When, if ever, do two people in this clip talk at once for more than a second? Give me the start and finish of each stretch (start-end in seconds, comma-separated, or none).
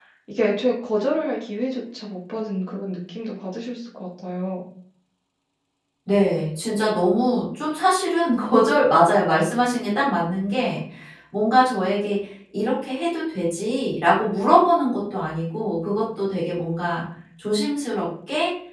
none